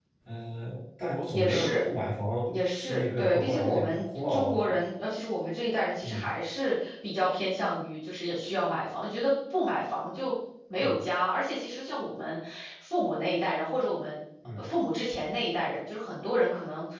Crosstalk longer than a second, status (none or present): present